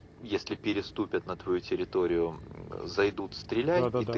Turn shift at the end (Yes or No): No